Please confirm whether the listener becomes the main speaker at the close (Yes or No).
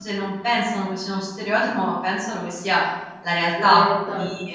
No